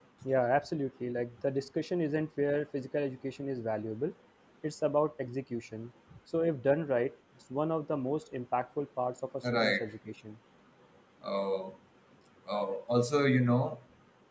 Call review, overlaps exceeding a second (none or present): none